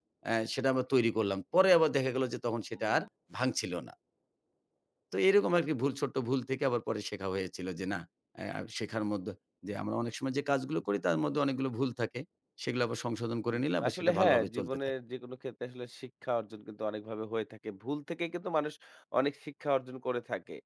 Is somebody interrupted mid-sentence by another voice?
Yes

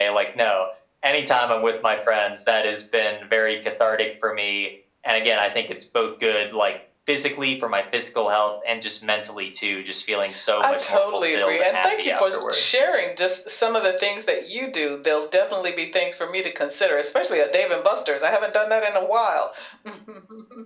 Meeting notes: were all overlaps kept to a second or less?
No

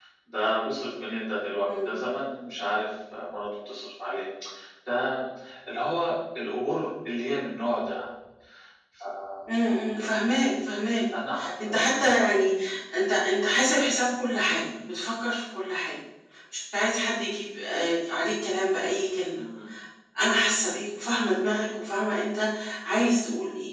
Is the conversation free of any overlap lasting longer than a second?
Yes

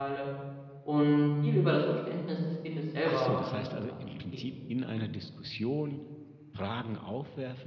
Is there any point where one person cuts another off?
Yes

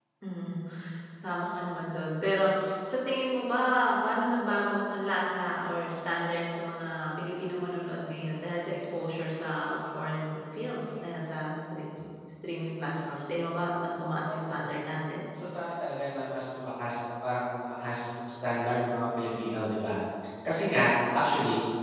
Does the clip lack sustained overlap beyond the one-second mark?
Yes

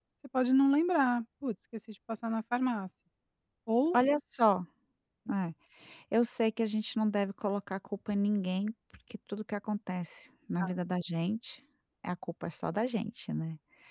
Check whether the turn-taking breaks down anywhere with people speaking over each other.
No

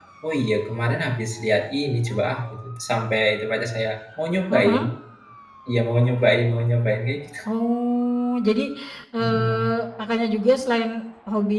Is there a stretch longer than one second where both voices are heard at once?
No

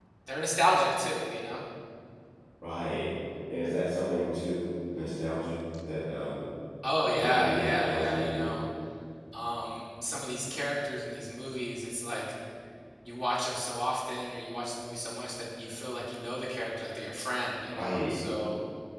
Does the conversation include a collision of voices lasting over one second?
Yes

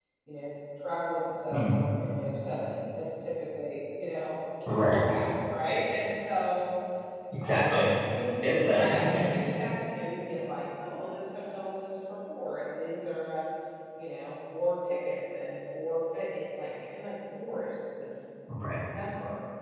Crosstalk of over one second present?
No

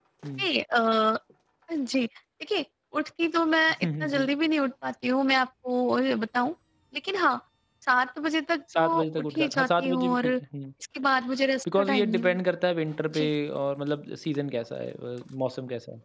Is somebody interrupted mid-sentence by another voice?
Yes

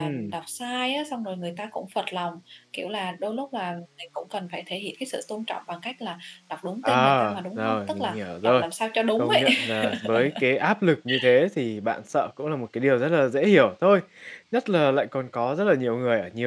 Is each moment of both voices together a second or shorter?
No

